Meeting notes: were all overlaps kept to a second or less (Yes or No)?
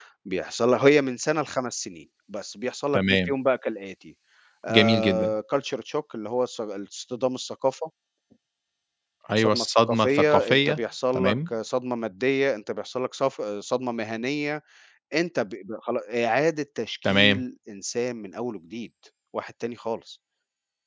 No